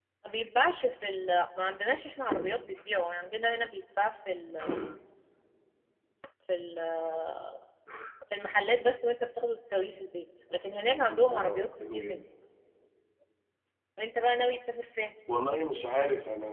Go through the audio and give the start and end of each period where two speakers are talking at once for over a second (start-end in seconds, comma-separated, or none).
10.8-12.2